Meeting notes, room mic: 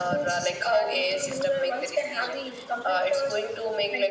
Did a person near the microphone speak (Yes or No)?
No